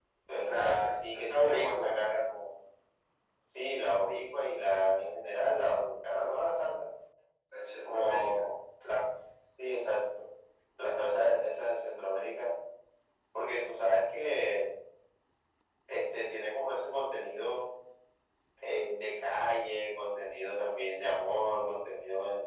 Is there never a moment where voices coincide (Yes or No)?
No